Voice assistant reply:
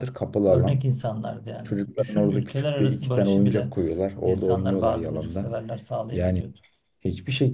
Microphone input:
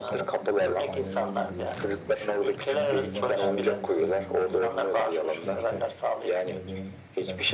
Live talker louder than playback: No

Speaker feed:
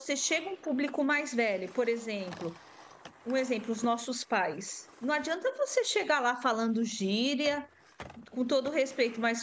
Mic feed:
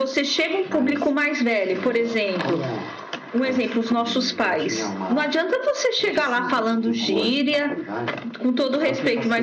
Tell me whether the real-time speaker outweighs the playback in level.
No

